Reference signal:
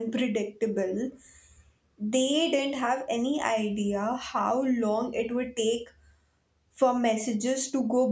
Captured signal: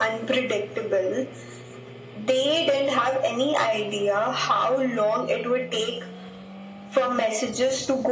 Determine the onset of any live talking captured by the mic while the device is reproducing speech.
none

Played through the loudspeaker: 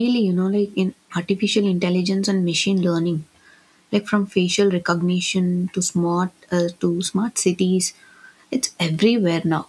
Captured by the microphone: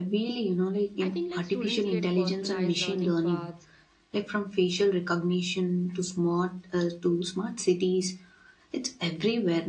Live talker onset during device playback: 1 s

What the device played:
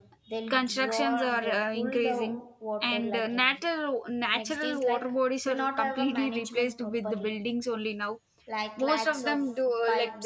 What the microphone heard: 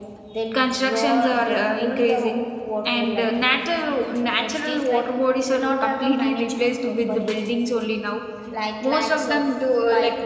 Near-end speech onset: none

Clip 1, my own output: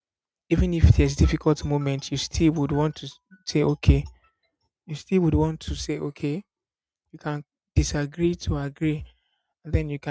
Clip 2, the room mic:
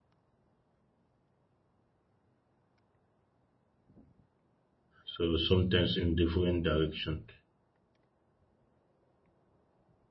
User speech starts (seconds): 5 s

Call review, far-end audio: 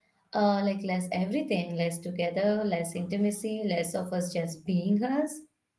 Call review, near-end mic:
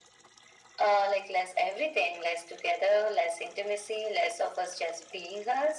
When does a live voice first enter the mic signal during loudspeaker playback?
none

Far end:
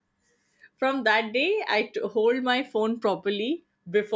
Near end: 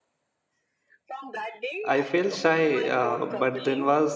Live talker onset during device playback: 2 s

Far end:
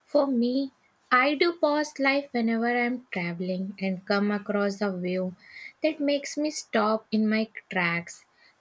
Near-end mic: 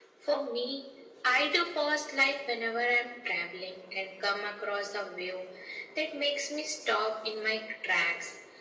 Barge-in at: none

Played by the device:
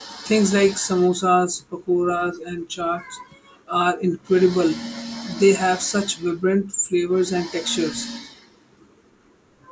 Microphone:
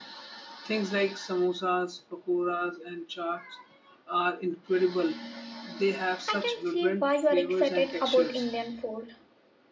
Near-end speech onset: 6 s

